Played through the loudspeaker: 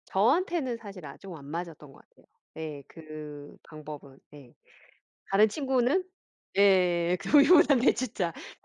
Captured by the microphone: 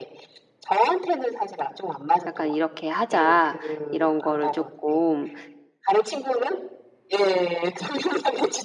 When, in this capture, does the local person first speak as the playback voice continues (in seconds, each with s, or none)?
2.2 s